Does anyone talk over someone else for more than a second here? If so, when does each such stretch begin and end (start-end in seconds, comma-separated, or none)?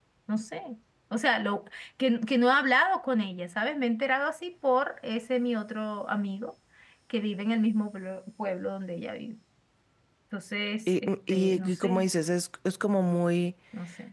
10.9-12.1